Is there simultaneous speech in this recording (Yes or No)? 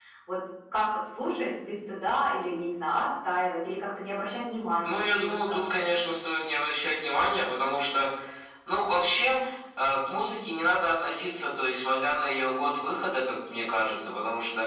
Yes